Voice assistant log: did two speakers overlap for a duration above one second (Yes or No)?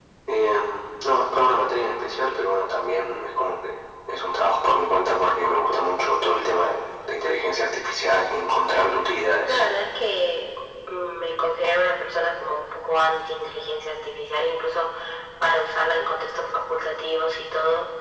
No